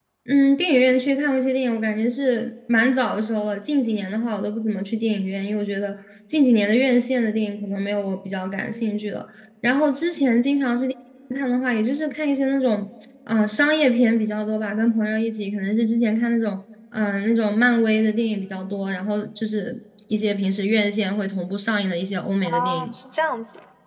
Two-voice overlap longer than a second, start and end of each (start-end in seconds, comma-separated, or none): none